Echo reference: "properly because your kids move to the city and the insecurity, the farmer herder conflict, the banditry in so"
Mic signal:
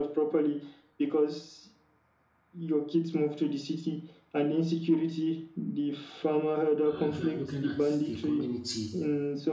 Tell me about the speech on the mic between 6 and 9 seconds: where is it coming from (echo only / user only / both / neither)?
both